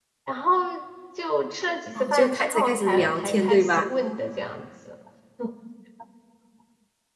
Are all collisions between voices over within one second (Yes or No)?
No